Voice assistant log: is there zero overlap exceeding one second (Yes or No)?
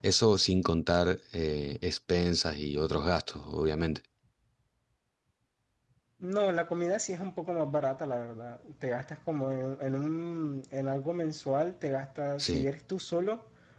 Yes